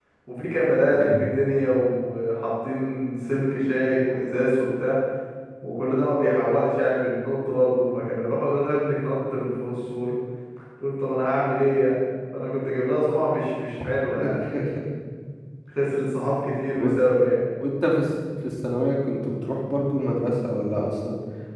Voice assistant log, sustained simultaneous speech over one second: none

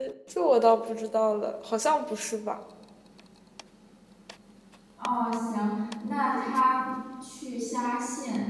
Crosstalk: none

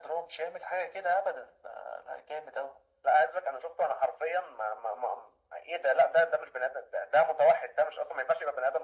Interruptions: none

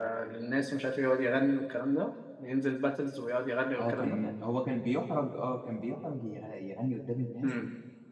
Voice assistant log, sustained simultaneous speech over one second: none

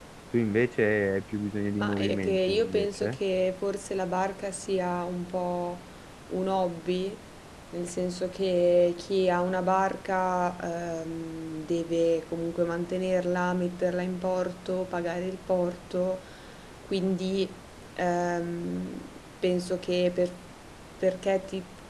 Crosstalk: present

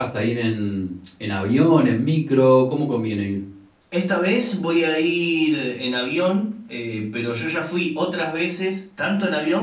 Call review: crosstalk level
none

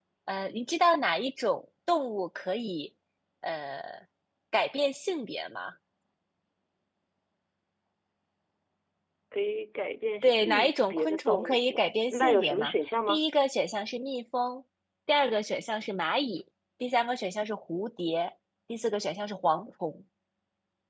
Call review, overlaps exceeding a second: present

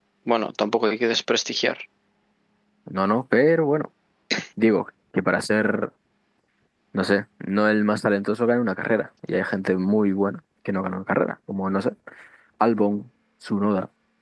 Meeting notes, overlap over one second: none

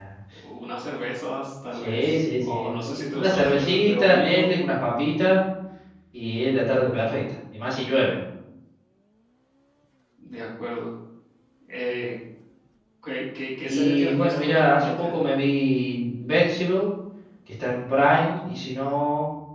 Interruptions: present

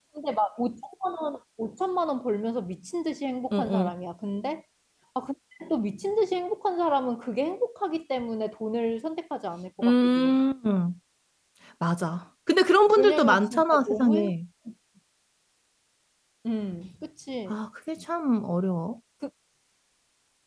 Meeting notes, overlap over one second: present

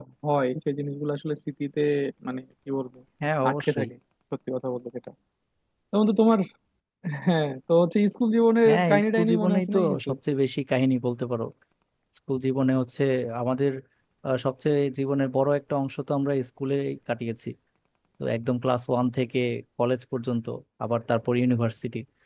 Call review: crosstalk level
present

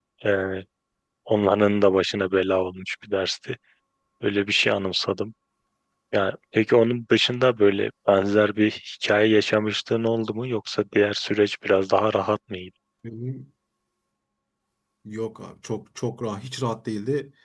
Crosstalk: none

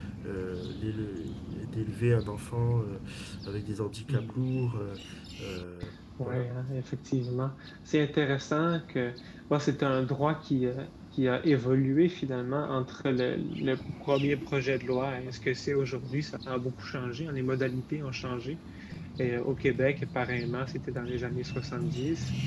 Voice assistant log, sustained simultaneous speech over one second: none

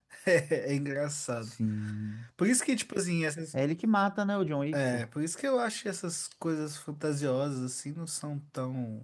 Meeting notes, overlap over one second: none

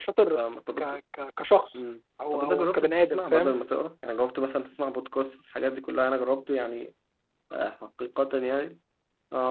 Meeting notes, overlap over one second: present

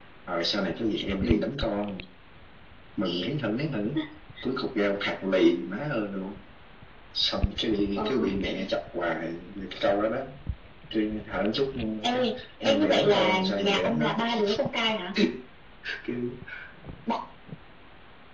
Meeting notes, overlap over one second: present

